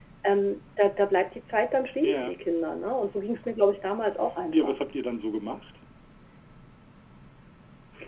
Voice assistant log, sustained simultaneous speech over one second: none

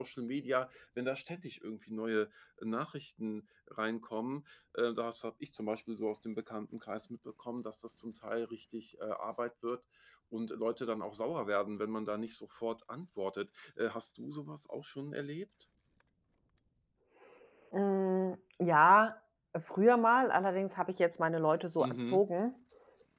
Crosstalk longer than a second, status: none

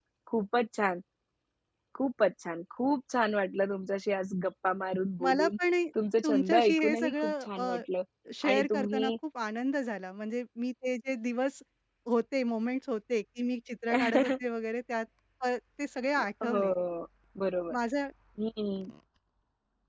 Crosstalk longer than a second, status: present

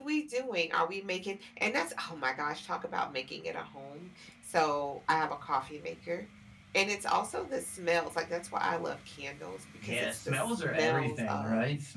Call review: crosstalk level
present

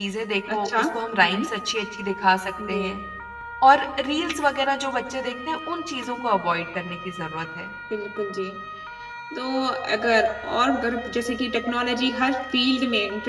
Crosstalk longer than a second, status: none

